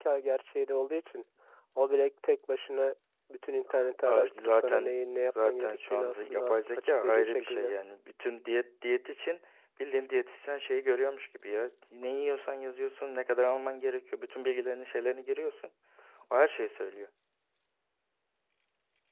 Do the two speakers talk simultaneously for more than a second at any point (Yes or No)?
Yes